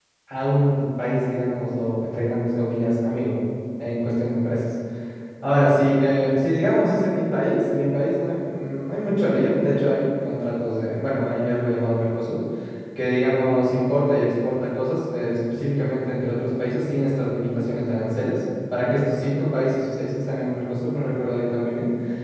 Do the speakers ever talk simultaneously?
No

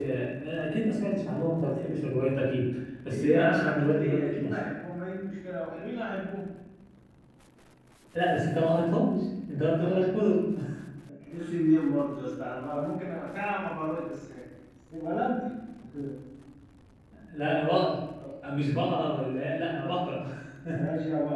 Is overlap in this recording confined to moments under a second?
No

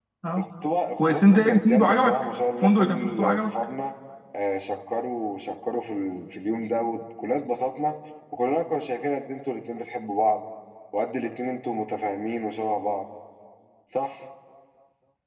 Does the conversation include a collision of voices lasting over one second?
Yes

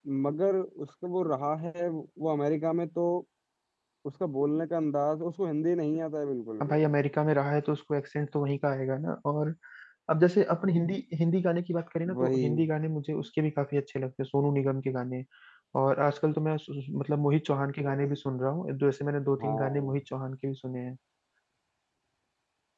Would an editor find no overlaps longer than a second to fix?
Yes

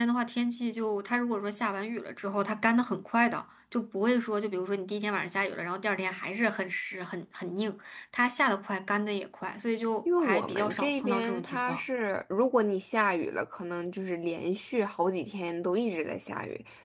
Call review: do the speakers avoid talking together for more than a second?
No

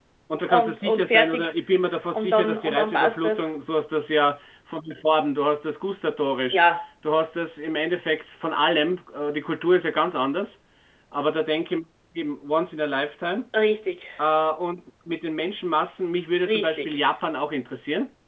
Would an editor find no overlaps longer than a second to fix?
No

